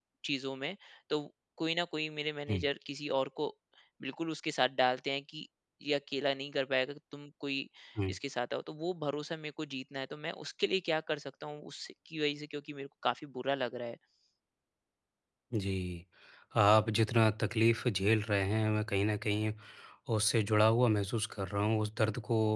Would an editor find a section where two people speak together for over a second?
No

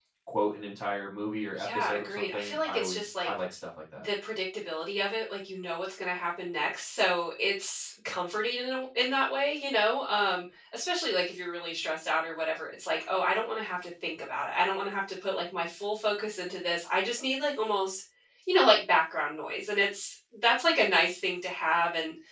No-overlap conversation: No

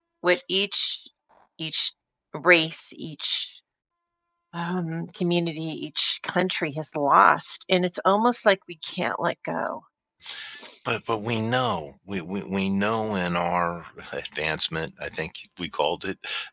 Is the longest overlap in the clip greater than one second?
No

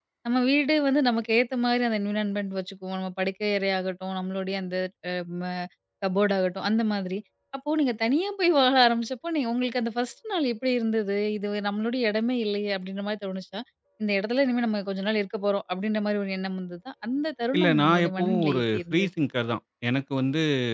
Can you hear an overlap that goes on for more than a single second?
Yes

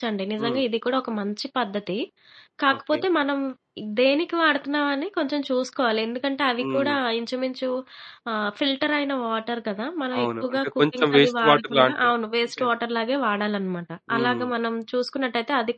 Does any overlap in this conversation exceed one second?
Yes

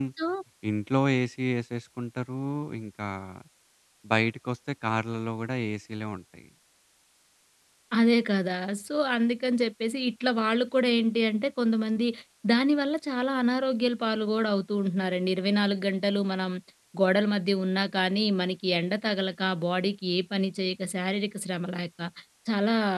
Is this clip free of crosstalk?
Yes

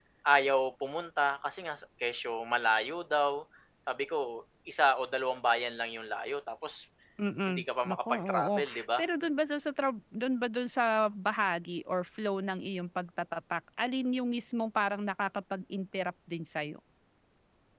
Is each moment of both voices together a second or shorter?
No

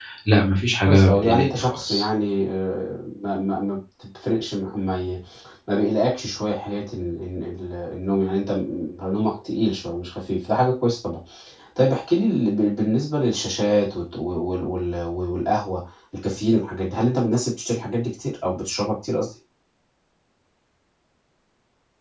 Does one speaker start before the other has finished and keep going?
Yes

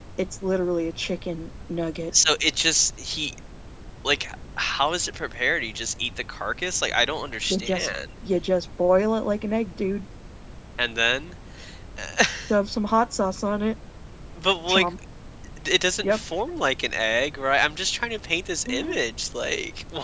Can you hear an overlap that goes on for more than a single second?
No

